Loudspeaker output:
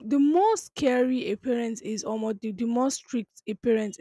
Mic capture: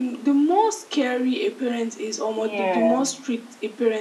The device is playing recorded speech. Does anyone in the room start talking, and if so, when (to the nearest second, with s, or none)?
2 s